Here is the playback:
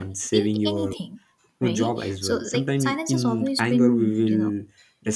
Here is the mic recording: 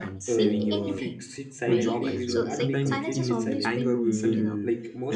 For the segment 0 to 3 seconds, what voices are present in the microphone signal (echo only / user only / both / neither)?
both